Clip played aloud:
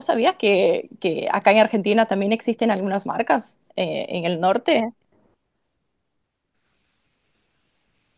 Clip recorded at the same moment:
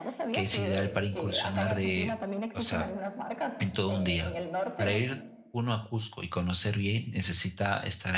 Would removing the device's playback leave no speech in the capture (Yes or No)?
No